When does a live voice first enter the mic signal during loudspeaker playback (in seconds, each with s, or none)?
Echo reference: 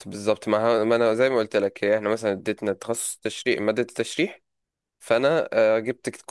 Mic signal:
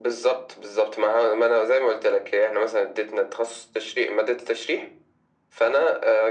none